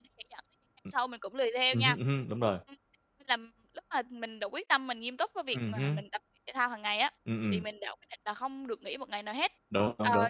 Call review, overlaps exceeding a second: none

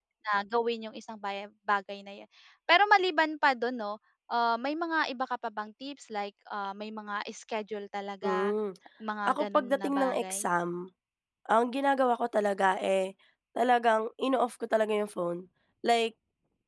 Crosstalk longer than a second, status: present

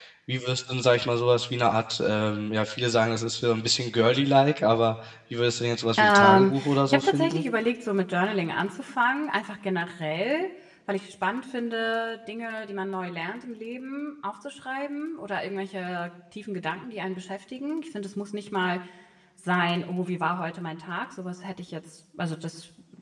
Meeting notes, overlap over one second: present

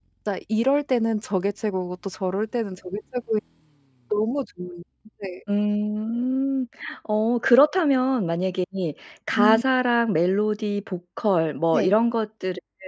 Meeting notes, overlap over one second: none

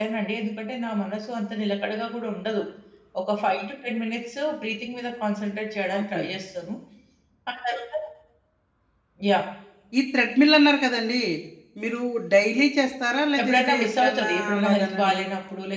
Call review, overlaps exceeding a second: present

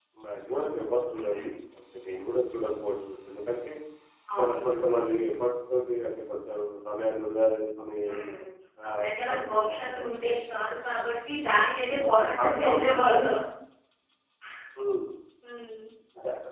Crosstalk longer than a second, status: present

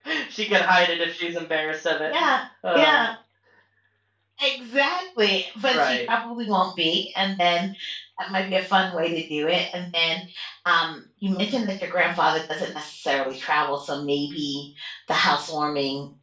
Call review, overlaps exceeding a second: none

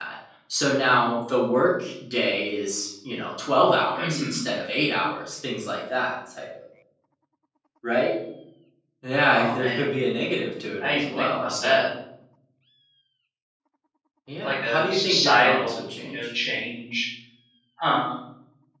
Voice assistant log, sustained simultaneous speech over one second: present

